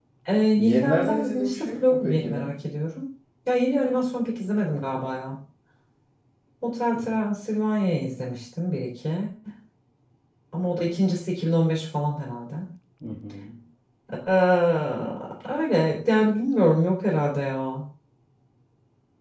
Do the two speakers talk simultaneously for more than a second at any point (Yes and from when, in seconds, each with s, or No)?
Yes, from 0.6 s